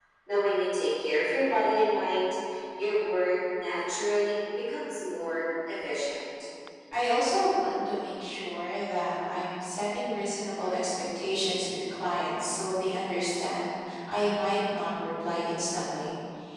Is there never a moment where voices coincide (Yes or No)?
Yes